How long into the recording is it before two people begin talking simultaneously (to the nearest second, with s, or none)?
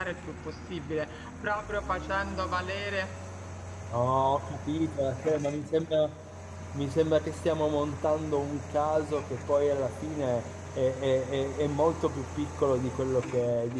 none